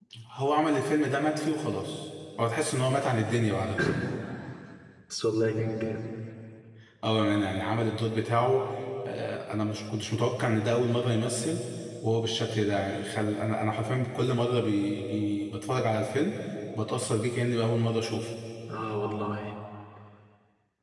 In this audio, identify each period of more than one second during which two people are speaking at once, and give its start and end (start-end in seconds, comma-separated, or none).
none